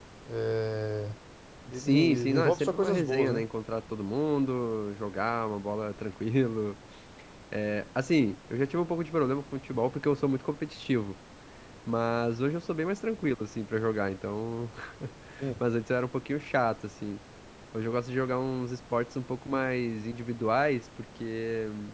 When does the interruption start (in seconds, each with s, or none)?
1.7 s